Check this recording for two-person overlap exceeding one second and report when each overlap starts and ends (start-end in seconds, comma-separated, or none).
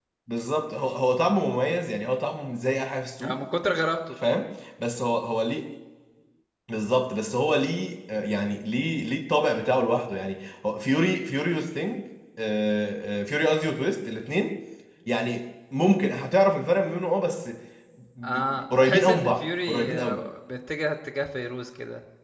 18.2-20.2